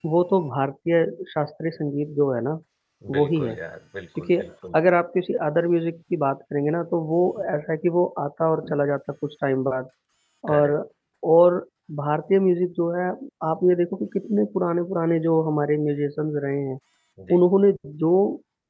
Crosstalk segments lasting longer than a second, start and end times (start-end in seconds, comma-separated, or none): none